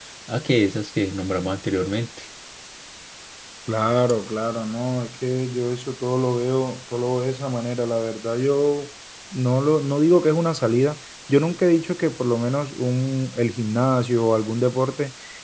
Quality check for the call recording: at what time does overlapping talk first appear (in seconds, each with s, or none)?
none